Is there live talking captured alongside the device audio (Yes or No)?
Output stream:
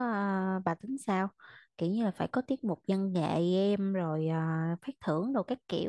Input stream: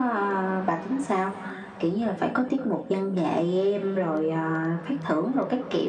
No